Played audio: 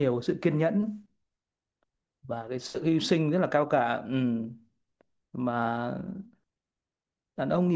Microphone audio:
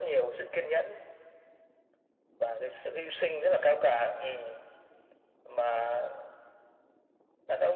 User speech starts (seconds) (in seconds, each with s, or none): none